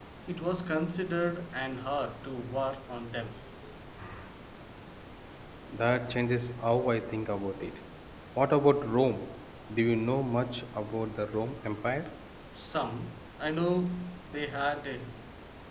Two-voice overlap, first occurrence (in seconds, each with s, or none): none